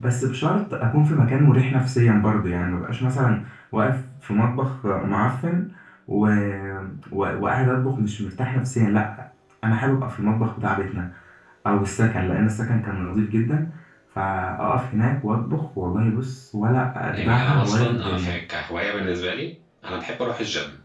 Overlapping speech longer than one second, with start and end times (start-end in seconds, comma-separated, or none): 17.1-18.4